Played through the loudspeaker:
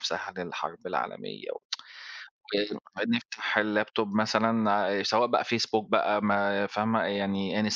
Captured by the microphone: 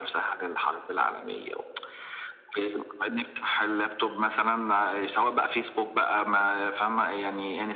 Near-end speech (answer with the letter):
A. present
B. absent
B